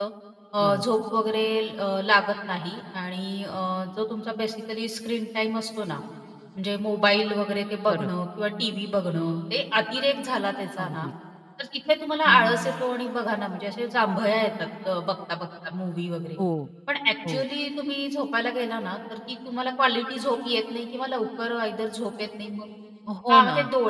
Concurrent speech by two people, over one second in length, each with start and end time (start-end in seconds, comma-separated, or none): none